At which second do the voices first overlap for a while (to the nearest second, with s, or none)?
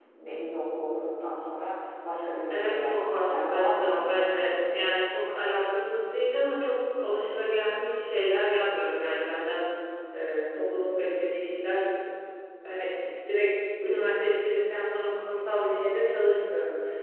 3 s